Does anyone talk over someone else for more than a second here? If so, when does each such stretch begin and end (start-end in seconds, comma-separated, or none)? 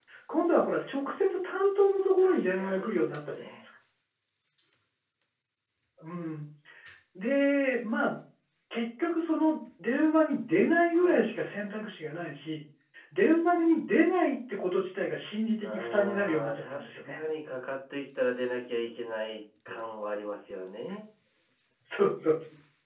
2.2-3.6, 15.6-17.2